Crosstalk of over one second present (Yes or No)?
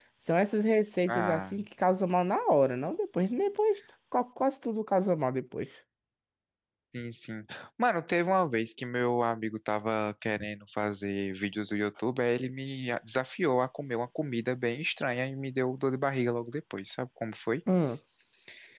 No